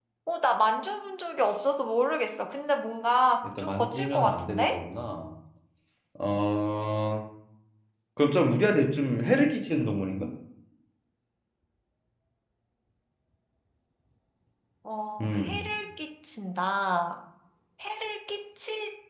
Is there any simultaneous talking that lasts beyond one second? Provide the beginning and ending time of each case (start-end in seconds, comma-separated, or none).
3.6-4.8